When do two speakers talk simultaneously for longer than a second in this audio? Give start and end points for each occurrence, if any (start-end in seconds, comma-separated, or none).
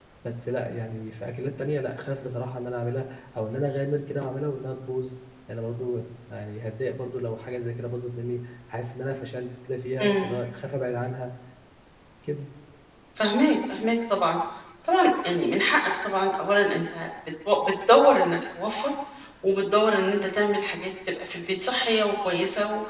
none